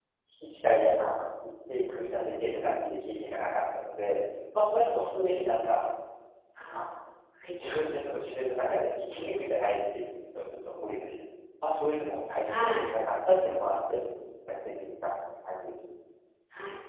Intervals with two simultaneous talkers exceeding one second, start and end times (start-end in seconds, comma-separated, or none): none